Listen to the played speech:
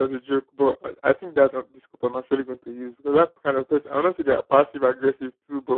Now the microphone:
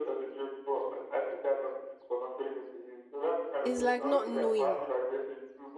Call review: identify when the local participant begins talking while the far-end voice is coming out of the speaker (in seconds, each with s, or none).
3.6 s